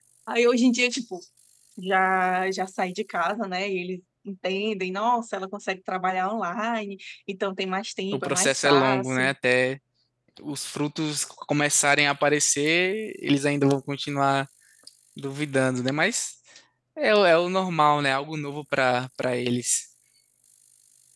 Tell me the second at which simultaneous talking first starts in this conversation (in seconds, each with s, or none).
8.1 s